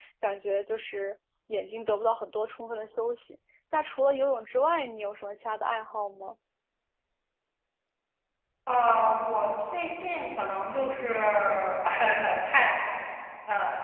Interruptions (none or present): none